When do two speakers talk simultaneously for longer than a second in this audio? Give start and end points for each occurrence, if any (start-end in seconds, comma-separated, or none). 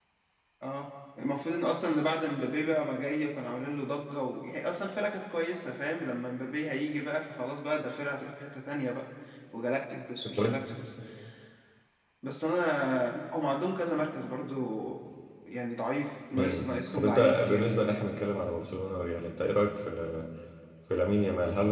16.4-17.7